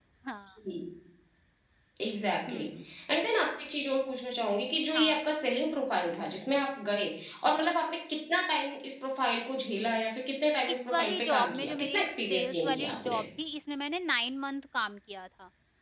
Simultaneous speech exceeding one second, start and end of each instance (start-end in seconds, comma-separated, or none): 10.7-13.2